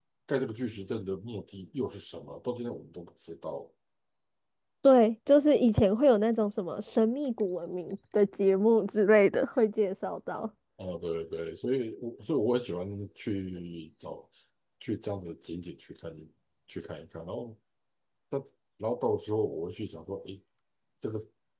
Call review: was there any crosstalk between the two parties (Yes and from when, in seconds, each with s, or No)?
No